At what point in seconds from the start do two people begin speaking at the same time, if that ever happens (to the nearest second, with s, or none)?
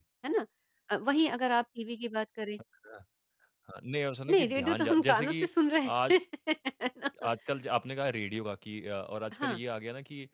4 s